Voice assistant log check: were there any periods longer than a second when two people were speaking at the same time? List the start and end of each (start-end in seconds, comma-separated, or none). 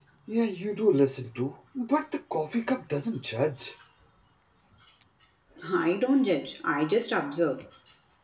none